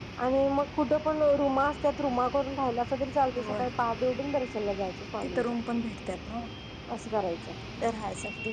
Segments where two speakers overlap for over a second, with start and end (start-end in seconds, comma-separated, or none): none